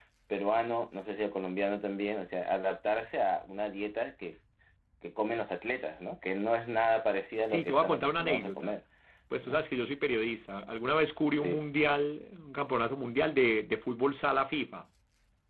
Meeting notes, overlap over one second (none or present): present